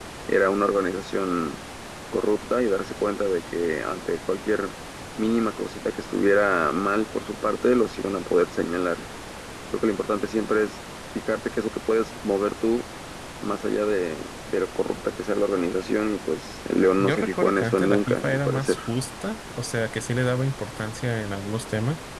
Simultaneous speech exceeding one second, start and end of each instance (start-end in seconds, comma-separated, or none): 17.0-18.8